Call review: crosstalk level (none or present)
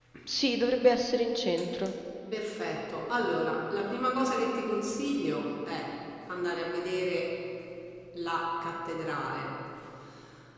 none